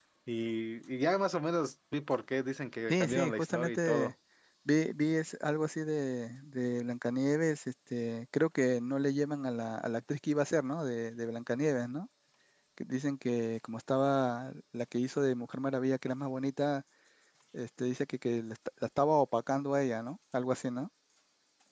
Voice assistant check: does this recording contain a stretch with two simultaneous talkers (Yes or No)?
Yes